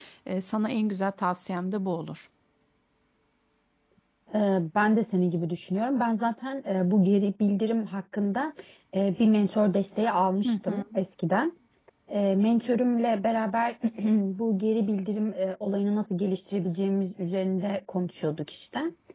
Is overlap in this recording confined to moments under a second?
Yes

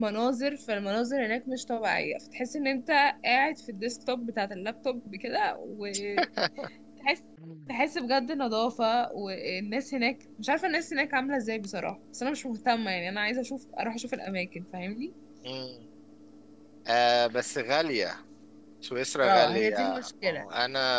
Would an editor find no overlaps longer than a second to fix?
No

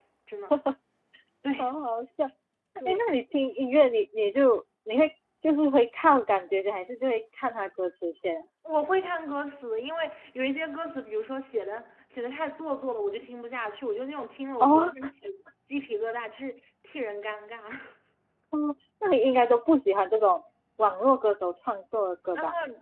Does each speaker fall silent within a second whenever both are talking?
Yes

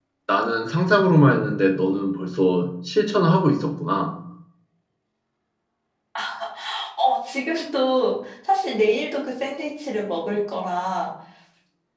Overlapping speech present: No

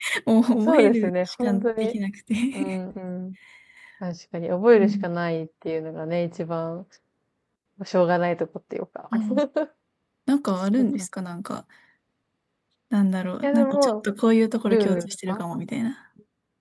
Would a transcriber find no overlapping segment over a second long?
No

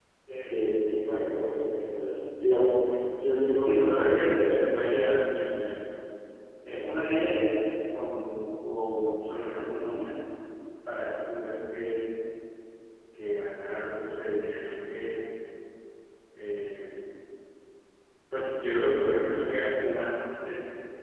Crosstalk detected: Yes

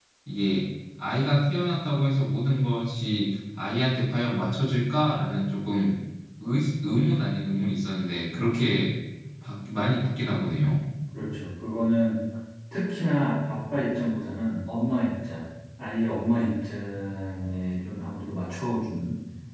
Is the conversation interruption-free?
Yes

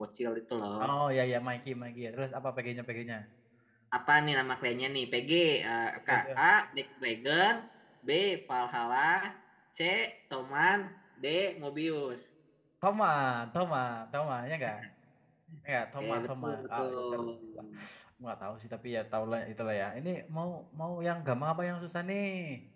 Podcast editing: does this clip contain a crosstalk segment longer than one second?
Yes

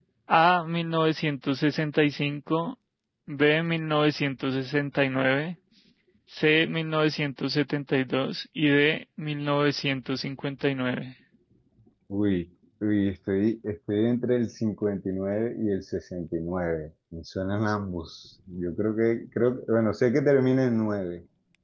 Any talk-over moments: No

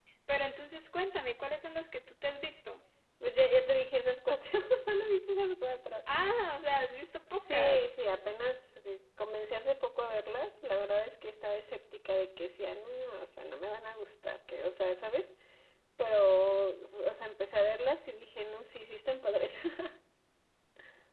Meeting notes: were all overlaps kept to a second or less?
Yes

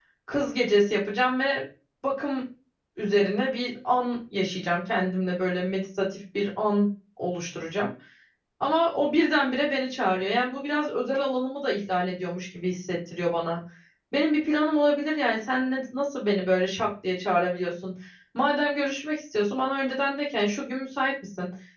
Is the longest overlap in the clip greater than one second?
No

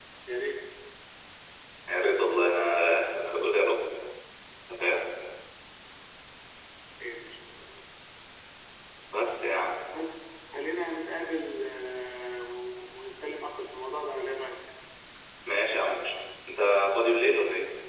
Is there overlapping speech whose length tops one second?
No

